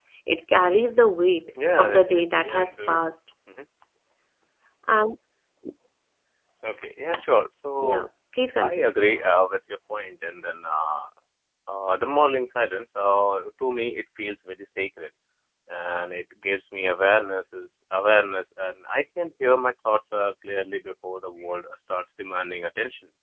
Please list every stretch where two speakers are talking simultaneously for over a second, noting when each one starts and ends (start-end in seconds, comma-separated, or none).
1.8-3.0